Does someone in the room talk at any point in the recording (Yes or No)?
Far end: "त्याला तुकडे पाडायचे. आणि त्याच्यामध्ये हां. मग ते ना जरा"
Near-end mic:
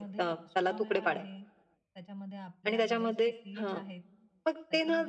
Yes